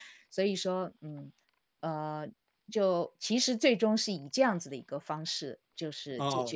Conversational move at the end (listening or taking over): taking over